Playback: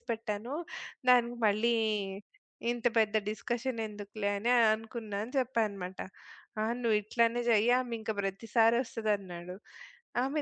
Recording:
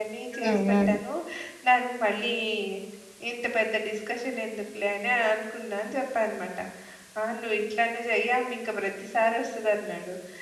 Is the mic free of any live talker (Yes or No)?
No